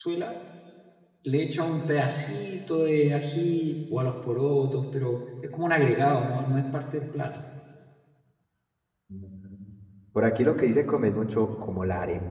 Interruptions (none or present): none